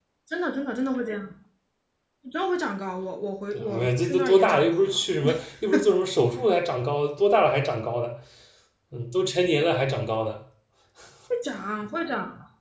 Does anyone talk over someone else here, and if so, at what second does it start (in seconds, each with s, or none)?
3.5 s